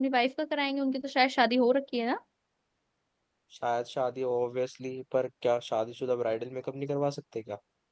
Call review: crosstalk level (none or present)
none